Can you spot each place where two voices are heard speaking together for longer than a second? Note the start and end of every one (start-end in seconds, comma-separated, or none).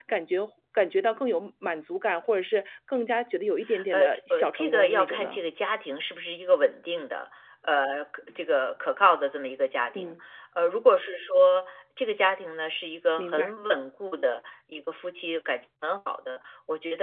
3.9-5.4